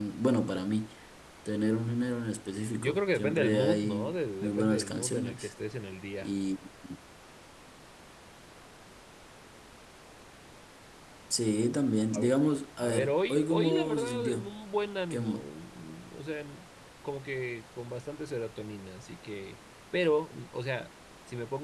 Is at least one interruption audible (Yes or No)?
Yes